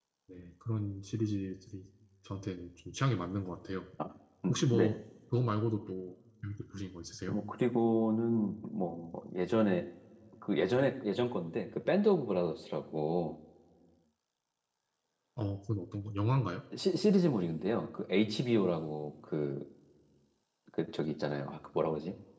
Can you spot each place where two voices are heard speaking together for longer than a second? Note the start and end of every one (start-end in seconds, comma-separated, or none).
none